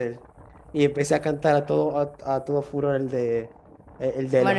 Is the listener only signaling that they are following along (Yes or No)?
No